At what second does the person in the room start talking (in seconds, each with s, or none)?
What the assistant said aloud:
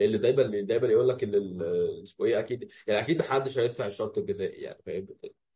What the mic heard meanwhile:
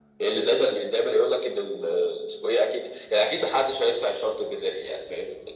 none